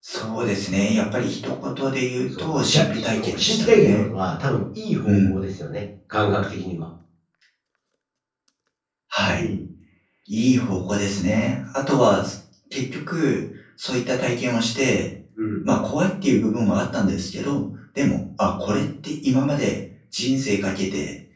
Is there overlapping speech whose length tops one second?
Yes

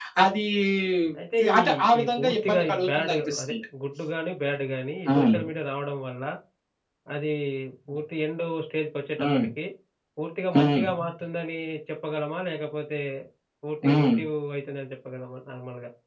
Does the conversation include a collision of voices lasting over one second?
Yes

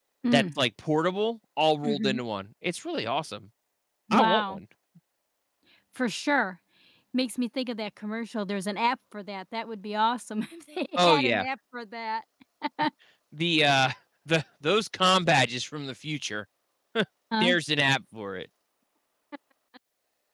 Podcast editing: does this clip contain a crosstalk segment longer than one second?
No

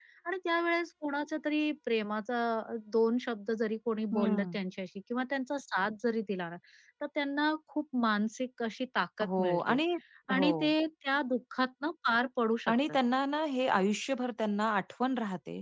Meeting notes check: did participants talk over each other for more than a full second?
No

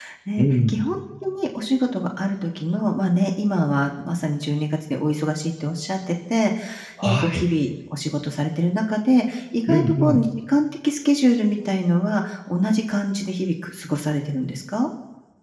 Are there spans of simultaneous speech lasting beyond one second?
No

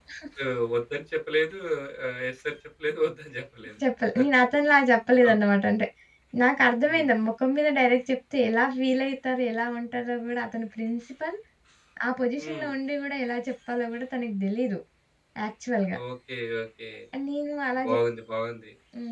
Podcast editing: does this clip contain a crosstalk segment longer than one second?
No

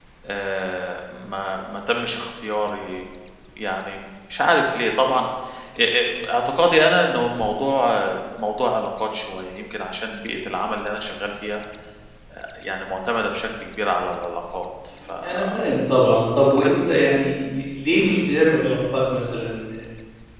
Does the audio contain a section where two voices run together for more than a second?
No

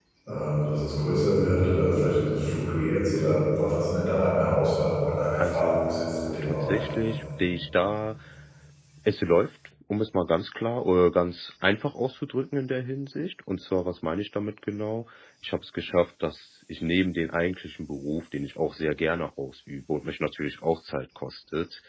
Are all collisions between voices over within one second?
No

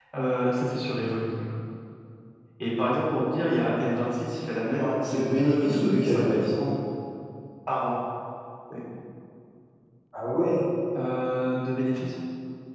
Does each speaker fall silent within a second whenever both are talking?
No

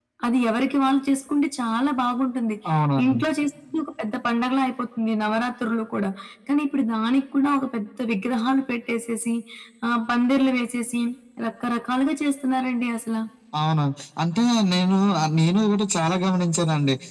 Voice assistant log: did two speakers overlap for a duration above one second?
No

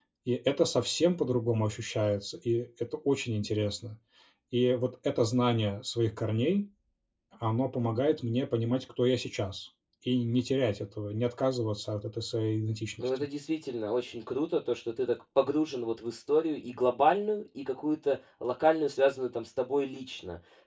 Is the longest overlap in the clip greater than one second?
No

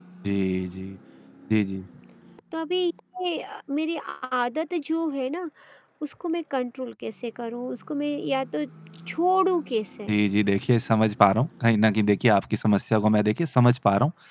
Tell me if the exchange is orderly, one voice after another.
Yes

